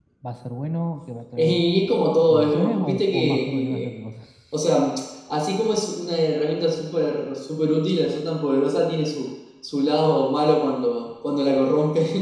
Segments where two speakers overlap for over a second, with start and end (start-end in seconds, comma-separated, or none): 2.2-3.9